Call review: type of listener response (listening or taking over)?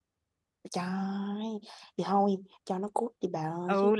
taking over